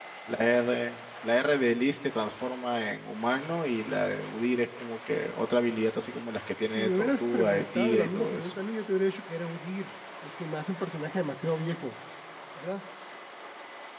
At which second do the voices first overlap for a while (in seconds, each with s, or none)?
6.7 s